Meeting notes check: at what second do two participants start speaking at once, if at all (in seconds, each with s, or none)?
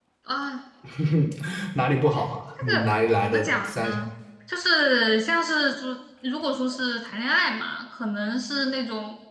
2.6 s